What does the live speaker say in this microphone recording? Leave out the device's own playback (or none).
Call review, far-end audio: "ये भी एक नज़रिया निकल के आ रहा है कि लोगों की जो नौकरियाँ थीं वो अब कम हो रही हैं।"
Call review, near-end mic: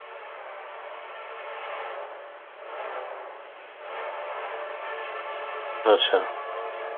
अच्छा।